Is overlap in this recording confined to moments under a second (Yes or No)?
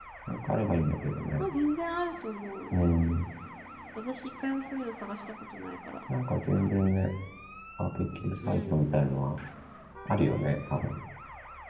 Yes